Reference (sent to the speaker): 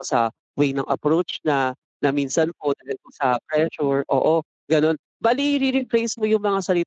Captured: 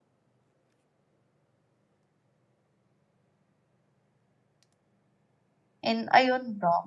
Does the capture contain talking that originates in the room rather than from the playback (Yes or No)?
Yes